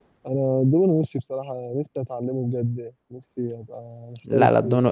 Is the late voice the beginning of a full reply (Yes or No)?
Yes